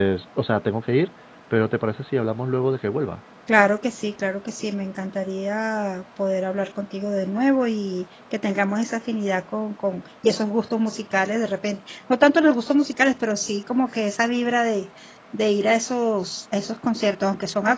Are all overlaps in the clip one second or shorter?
Yes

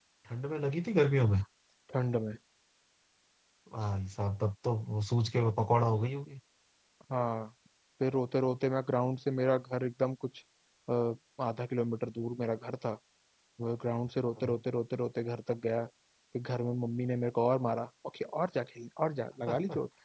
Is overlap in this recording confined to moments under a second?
Yes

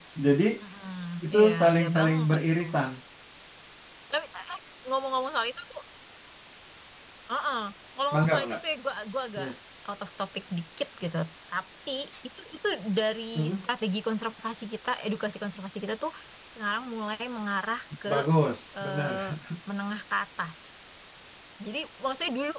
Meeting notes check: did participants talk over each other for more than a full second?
Yes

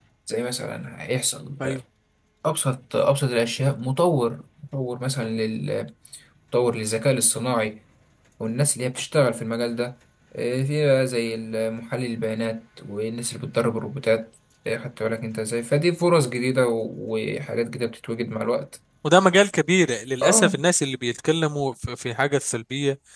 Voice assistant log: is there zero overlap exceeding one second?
Yes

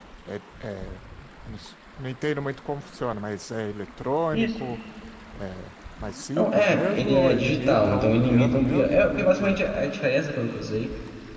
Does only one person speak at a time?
No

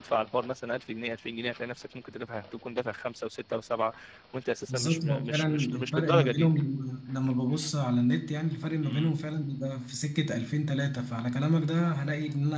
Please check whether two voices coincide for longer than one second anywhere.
Yes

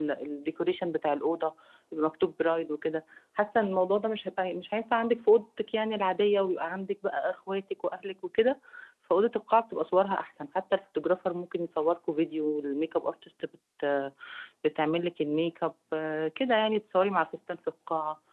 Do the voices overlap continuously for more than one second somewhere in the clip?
No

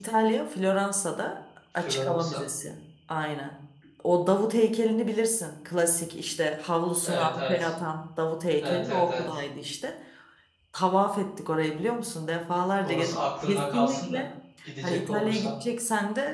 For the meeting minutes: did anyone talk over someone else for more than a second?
Yes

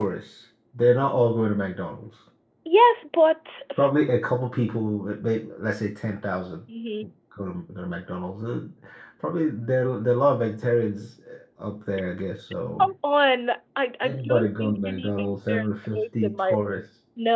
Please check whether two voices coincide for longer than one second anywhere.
Yes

